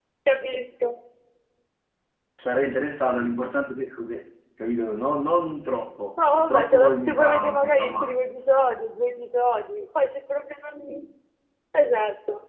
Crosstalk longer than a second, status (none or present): present